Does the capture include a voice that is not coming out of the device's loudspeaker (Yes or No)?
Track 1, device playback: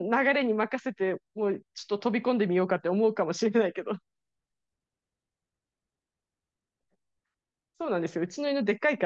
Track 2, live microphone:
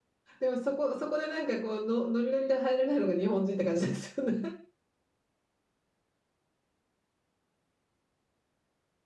Yes